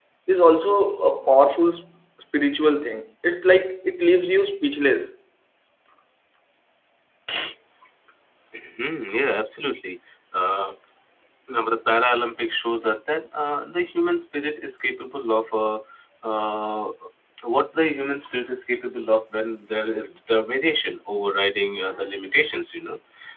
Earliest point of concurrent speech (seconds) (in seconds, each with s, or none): none